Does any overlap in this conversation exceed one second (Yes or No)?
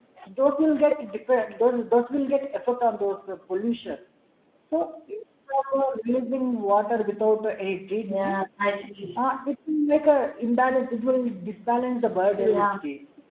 No